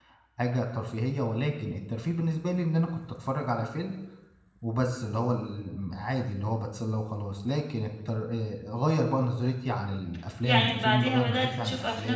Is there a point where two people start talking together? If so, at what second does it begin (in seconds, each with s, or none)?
10.4 s